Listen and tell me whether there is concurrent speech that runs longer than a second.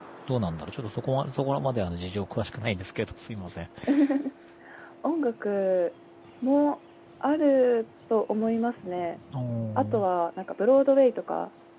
No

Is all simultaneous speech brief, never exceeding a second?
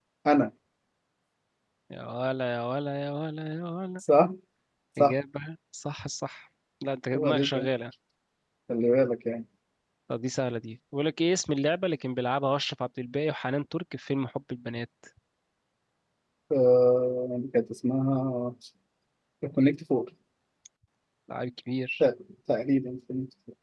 Yes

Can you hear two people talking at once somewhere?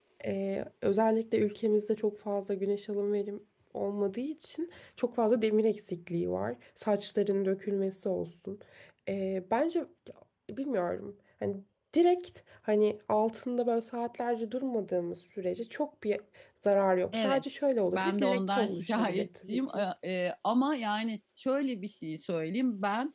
Yes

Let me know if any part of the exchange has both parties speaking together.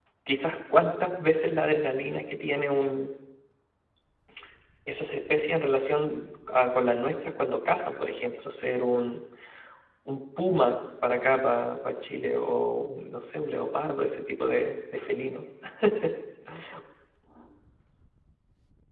No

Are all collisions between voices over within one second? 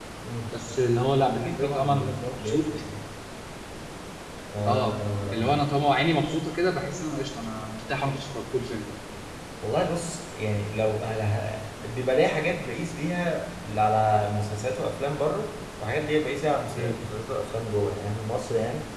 No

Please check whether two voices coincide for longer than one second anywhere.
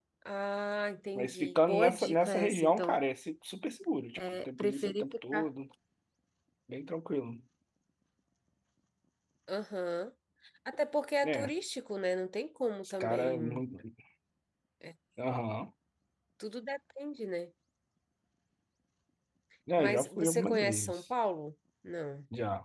Yes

